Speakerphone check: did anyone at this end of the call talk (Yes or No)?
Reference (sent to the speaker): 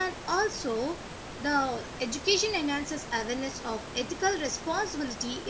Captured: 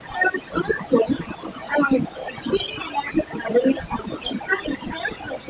No